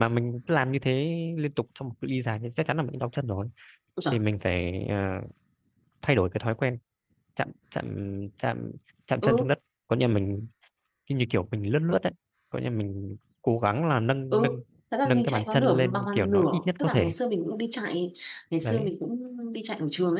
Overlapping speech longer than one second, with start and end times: 15.1-17.1

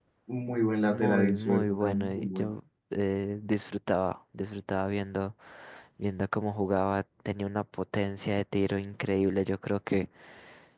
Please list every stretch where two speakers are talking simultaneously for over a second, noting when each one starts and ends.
0.9-2.5

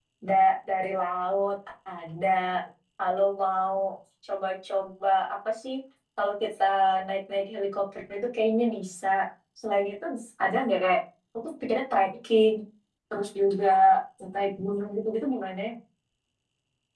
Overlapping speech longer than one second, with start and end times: none

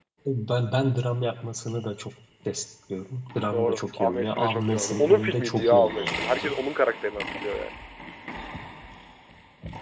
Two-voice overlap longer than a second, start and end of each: 3.5-6.5

